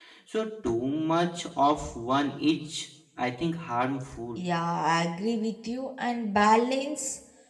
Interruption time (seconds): none

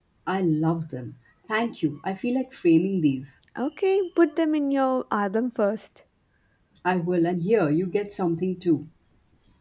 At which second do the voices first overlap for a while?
none

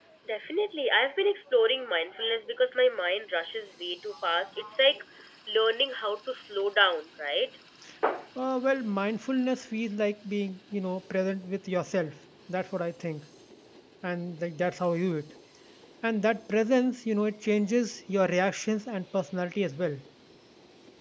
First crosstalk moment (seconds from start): none

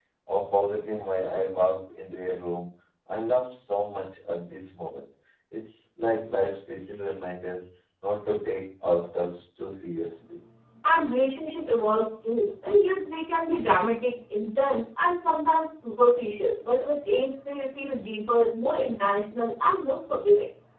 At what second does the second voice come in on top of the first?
none

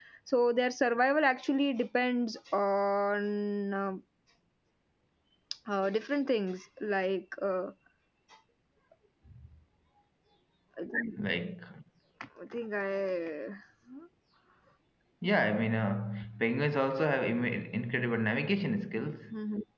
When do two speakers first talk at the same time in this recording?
none

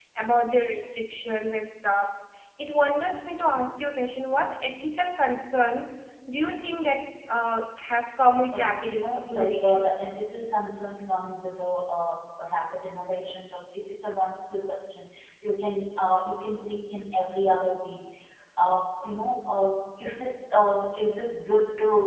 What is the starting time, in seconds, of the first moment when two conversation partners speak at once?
8.5 s

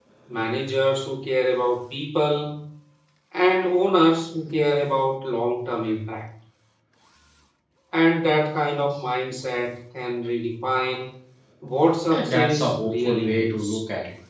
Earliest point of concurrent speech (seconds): 12.1 s

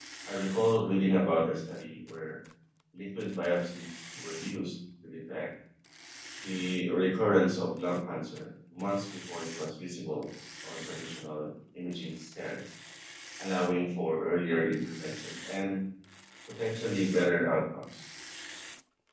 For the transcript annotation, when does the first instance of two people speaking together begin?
none

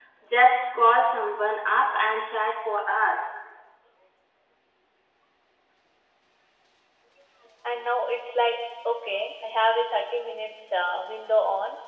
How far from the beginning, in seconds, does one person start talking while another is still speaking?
none

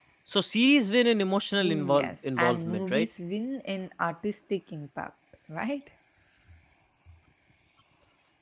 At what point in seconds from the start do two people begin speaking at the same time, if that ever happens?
1.6 s

